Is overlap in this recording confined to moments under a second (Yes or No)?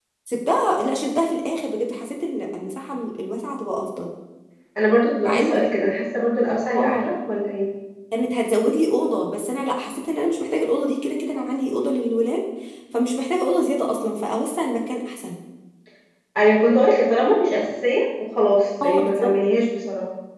Yes